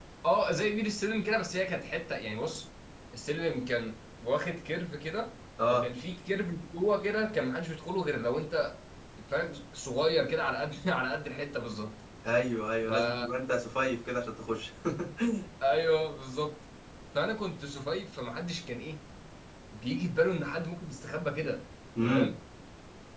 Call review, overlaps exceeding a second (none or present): none